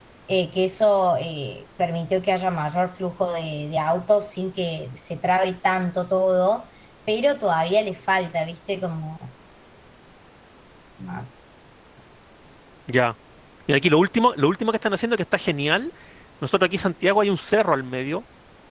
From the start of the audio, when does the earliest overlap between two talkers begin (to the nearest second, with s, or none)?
none